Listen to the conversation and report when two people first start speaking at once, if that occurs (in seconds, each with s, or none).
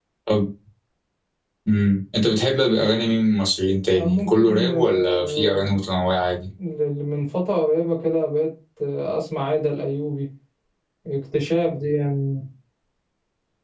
3.9 s